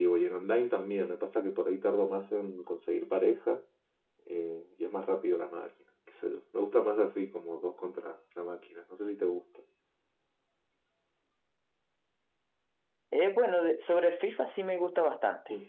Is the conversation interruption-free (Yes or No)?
Yes